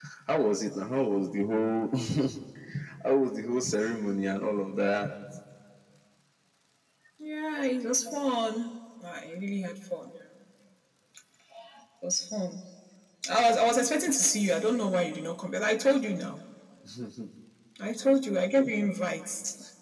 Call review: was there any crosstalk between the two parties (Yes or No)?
No